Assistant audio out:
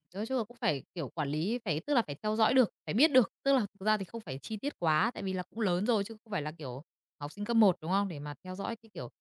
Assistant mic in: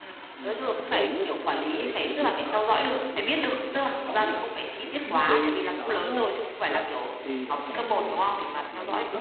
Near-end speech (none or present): present